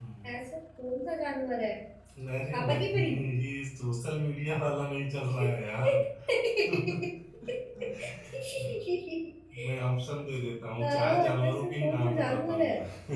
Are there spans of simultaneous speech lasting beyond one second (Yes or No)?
Yes